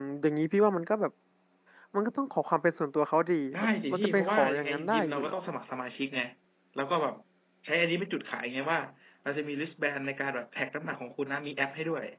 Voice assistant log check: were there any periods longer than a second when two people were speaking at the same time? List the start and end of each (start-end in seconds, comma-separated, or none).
3.5-5.4